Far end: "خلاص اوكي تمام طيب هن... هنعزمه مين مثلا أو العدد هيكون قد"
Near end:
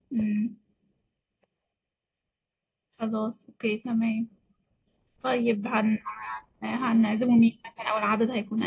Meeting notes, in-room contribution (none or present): none